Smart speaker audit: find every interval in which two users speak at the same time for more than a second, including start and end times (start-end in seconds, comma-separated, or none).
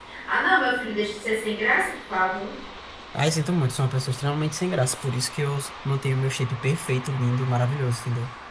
none